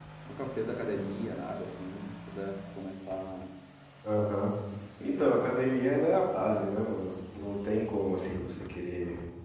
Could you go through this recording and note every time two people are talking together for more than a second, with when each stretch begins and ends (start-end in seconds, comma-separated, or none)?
none